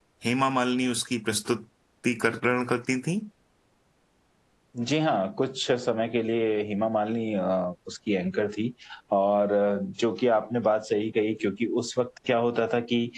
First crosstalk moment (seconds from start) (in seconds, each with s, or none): none